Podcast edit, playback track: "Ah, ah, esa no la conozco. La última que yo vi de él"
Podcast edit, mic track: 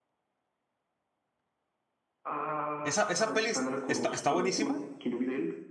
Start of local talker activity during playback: 2.8 s

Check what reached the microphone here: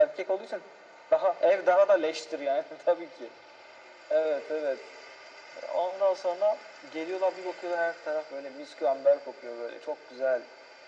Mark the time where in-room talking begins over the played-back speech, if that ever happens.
none

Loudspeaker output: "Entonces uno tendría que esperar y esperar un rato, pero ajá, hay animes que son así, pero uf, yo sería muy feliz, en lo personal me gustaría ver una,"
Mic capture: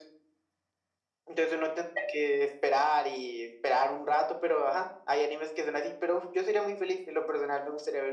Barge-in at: none

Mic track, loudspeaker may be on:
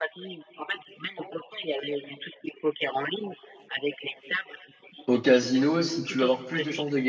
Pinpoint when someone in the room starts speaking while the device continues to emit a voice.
5.1 s

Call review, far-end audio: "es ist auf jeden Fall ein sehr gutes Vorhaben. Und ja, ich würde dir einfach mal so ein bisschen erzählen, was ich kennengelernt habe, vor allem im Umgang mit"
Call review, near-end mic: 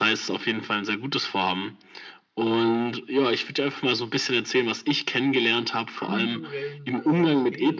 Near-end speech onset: 5.9 s

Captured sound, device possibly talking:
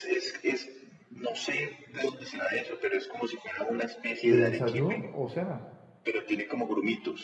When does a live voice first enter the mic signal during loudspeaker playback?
4.2 s

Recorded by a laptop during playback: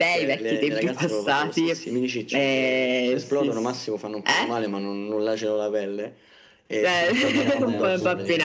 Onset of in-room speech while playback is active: 6.9 s

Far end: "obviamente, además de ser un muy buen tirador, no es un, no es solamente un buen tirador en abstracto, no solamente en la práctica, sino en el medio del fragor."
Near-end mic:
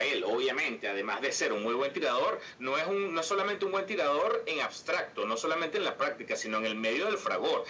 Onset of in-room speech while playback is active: none

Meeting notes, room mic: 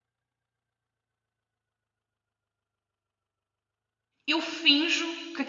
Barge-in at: 4.3 s

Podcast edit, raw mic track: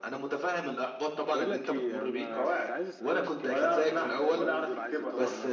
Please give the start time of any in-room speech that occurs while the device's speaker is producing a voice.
1.3 s

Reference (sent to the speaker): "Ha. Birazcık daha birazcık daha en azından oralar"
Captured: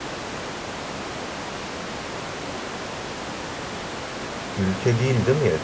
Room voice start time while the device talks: 4.6 s

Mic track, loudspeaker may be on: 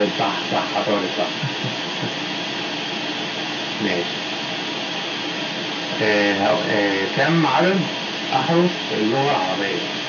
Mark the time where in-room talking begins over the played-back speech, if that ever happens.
none

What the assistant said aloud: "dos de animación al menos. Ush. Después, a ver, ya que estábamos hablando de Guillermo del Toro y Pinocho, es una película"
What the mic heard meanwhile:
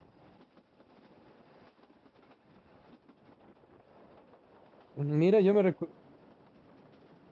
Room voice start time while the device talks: 4.9 s

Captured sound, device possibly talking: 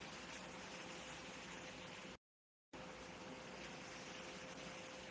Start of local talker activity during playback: none

